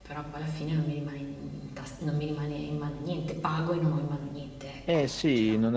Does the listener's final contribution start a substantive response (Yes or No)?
Yes